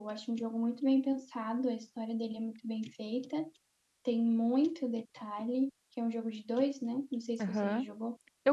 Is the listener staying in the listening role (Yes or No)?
No